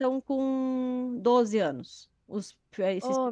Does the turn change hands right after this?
Yes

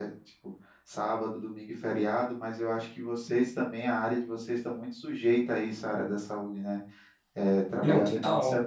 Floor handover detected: No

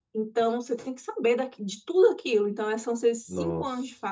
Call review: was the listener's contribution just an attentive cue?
Yes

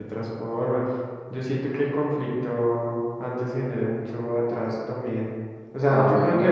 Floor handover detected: No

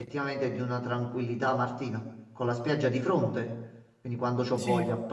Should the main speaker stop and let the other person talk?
No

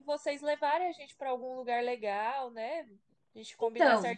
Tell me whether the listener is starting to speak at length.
No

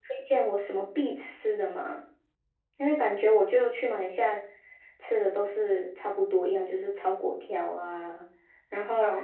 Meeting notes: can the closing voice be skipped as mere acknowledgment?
Yes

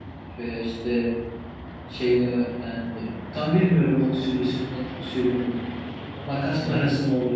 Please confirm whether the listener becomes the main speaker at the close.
No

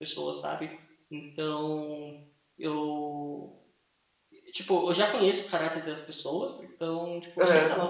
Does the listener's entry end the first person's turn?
No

